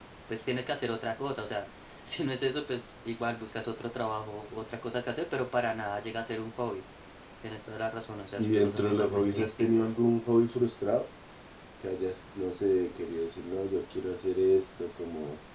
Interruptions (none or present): present